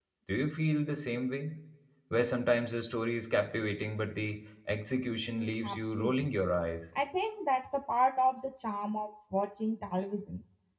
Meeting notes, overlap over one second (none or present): present